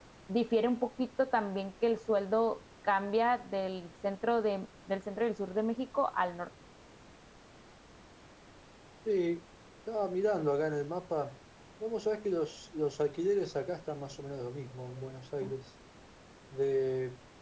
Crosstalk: none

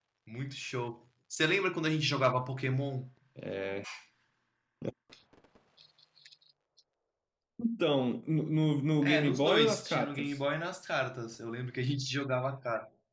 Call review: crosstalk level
present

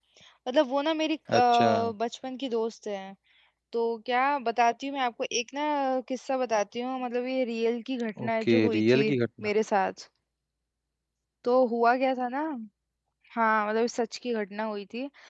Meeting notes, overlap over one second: present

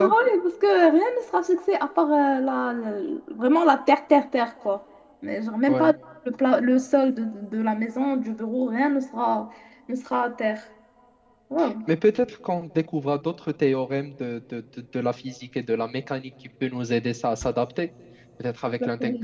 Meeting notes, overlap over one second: none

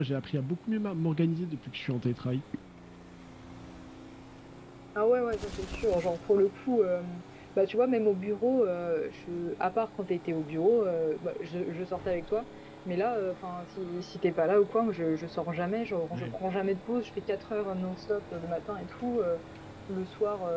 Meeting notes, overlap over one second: none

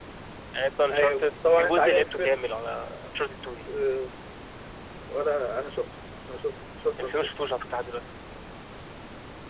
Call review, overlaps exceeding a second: present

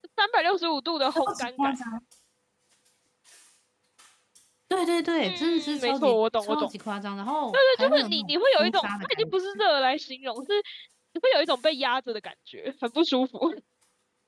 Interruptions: present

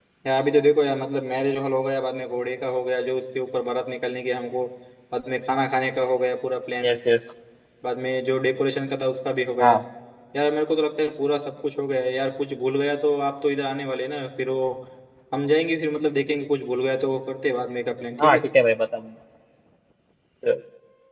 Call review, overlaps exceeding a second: none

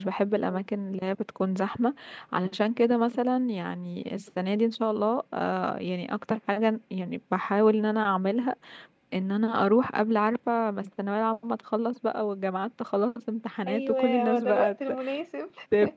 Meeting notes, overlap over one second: present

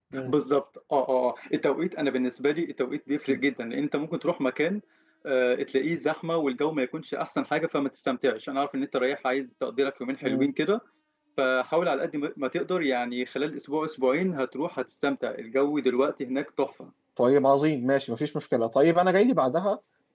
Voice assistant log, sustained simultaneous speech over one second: none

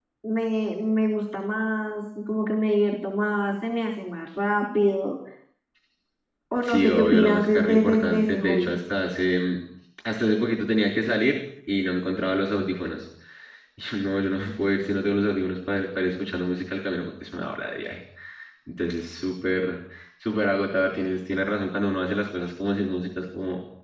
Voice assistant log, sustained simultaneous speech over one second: present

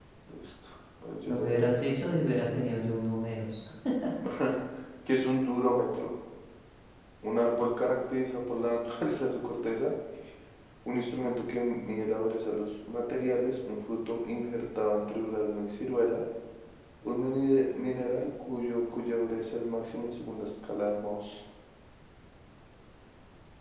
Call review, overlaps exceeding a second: none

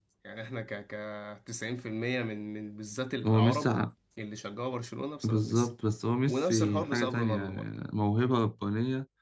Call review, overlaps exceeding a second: present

